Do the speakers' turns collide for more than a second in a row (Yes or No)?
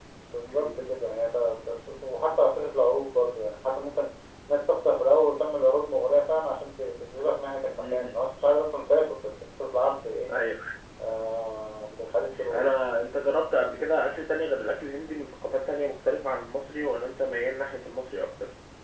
No